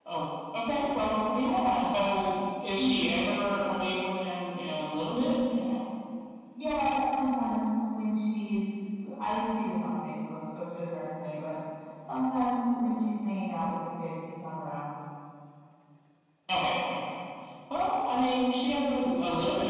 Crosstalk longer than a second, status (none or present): none